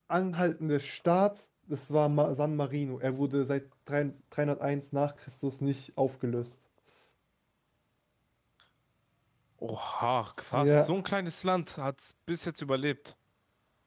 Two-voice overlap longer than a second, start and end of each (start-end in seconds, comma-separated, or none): none